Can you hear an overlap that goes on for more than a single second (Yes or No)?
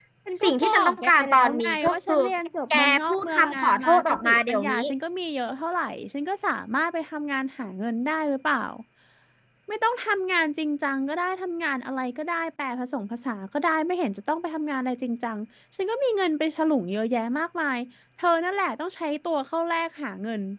Yes